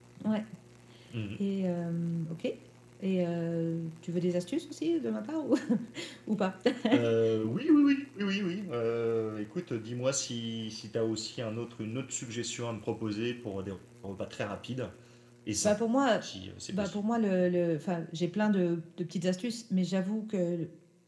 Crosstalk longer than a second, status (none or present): none